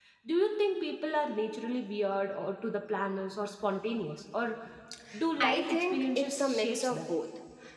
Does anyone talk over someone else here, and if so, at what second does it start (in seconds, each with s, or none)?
5.4 s